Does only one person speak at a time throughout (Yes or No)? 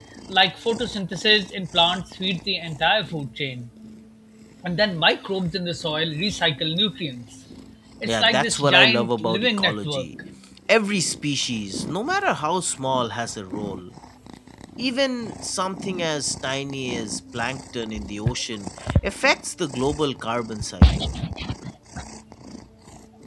No